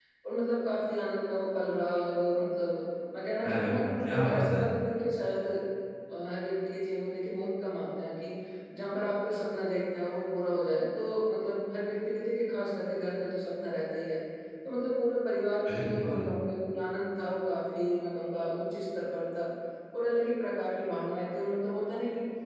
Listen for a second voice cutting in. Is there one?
Yes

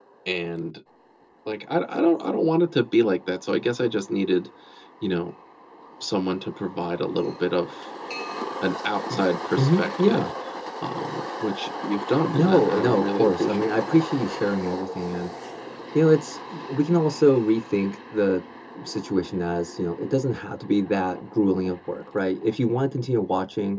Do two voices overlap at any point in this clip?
Yes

